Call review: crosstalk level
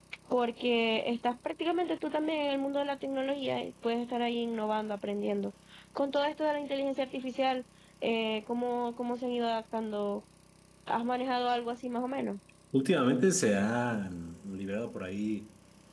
none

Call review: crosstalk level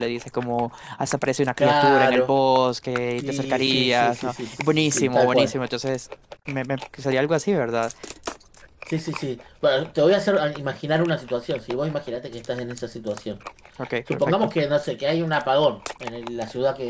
present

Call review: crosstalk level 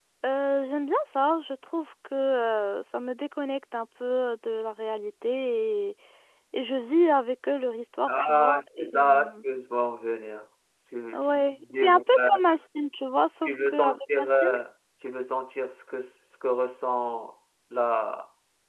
present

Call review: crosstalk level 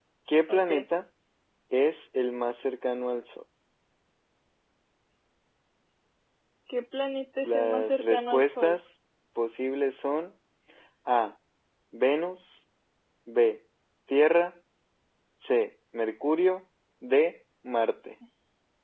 present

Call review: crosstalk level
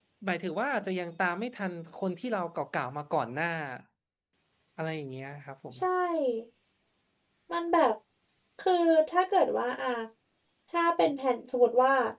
none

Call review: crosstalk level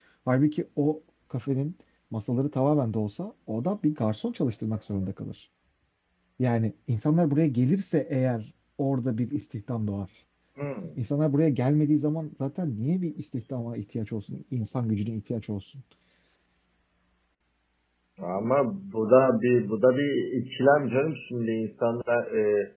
none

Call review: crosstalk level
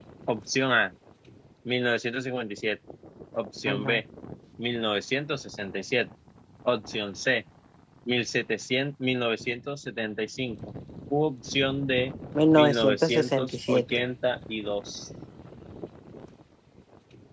present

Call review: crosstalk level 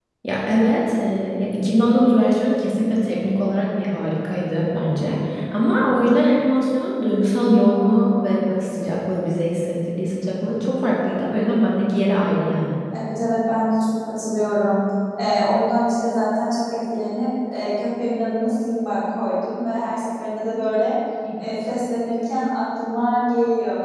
none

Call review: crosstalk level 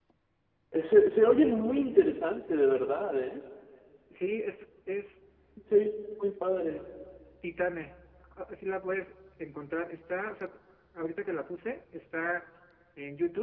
none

